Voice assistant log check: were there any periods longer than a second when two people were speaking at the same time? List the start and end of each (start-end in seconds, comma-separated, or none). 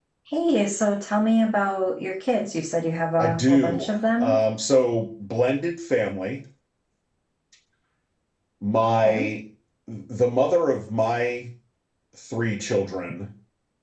3.2-4.4